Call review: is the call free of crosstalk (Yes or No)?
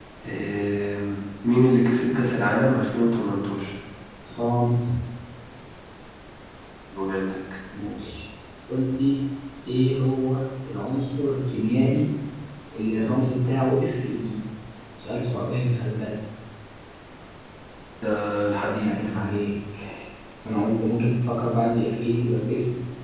Yes